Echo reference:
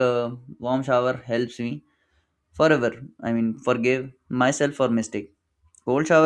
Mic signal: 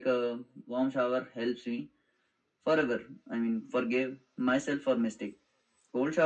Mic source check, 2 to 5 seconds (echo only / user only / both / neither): echo only